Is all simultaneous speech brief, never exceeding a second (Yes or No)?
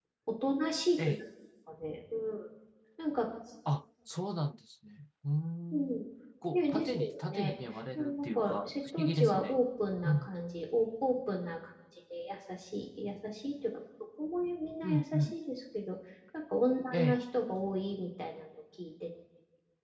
No